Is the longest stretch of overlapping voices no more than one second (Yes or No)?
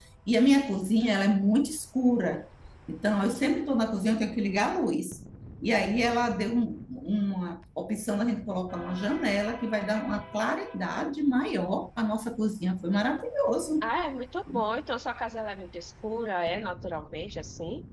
Yes